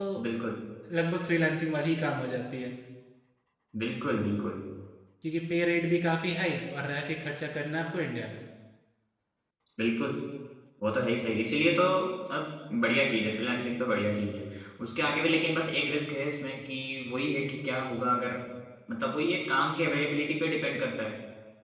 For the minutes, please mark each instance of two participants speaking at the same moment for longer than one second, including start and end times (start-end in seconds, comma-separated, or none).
none